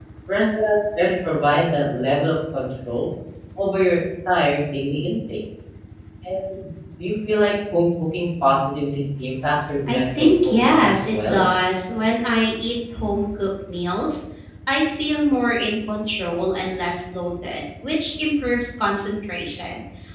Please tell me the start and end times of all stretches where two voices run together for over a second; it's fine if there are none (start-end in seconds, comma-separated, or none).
9.9-11.4